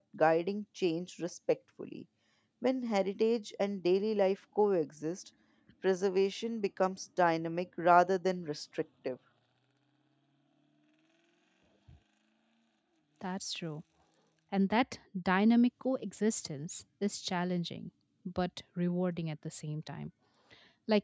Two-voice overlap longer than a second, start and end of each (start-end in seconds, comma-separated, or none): none